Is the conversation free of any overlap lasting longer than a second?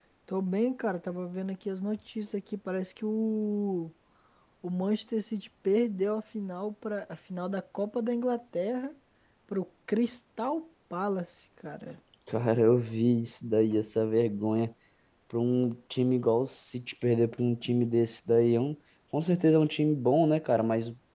Yes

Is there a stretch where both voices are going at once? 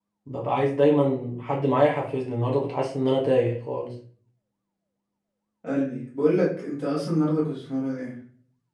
No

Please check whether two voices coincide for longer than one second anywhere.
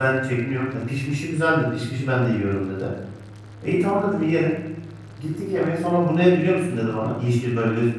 No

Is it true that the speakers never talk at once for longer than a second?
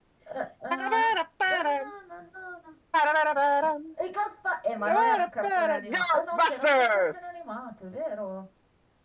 No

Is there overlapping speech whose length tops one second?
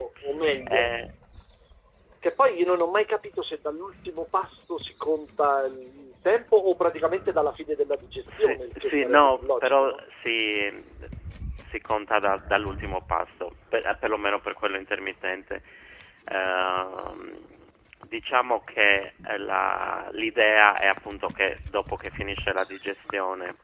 Yes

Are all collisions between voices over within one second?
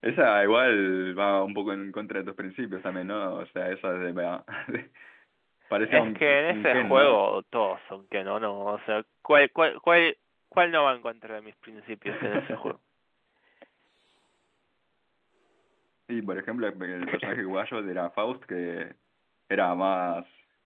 No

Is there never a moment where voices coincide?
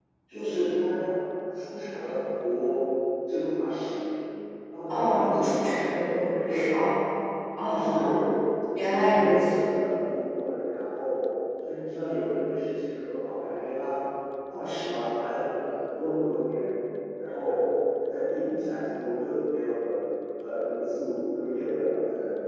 No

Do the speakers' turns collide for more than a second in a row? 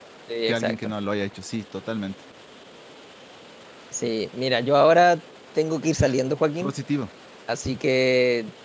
No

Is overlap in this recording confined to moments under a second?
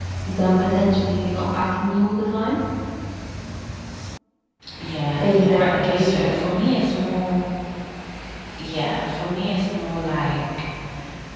No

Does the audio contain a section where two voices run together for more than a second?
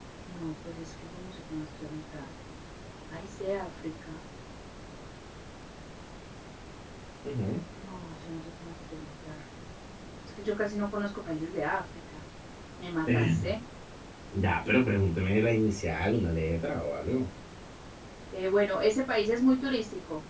No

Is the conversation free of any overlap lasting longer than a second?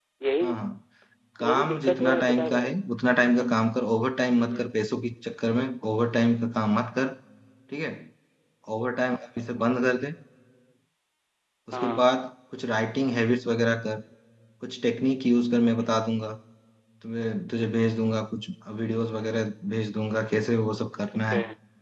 No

